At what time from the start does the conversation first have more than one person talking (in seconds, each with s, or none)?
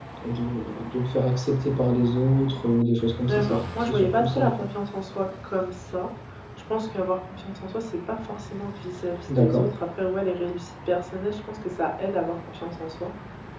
3.3 s